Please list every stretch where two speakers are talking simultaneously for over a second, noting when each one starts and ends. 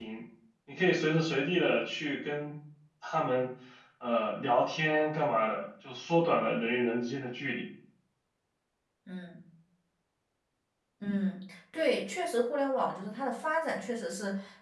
none

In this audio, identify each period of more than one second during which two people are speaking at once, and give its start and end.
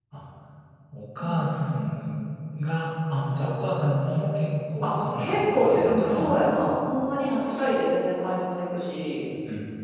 4.8-6.3

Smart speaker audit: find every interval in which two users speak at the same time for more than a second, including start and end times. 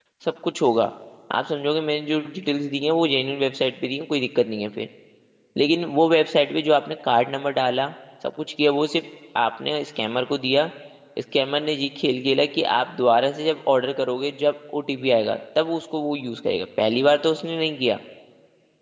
none

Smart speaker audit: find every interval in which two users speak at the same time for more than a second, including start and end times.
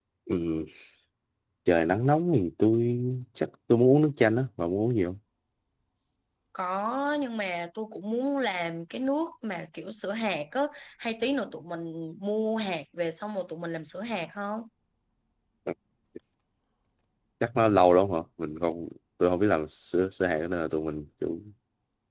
none

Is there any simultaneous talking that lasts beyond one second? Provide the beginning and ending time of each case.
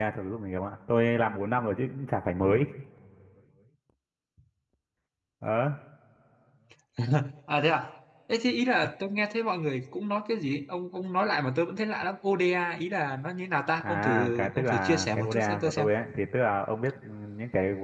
13.8-15.9

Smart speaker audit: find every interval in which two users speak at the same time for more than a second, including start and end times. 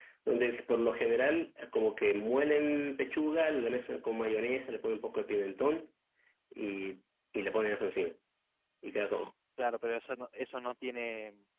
none

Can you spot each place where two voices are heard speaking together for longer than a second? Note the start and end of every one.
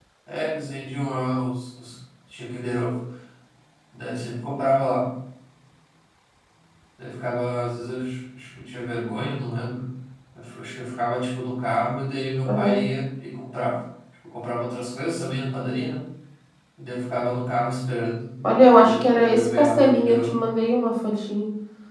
18.7-20.4

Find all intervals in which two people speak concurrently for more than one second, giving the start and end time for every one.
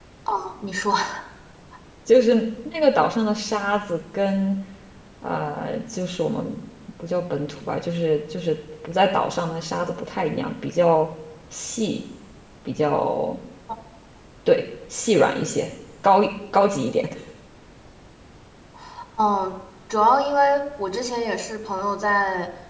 none

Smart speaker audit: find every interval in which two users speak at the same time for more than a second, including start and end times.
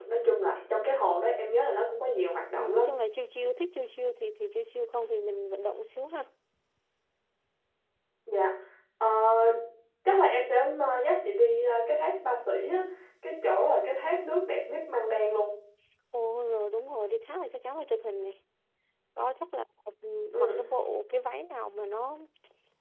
none

